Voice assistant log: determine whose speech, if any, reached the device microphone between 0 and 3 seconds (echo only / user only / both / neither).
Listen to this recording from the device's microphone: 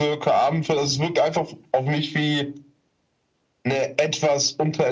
echo only